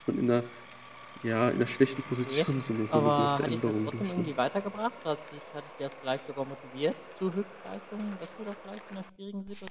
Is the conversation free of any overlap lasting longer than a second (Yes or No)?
No